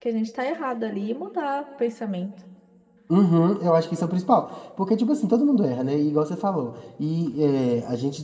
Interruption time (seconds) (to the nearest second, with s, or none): none